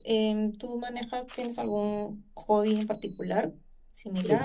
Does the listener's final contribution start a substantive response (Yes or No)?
Yes